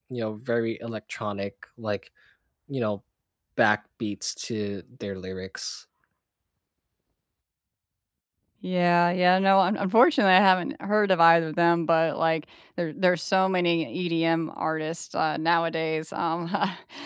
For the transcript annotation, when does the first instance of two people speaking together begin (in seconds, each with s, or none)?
none